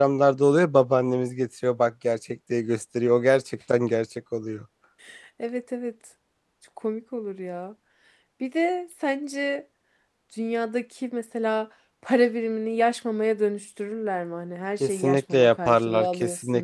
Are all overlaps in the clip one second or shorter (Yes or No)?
No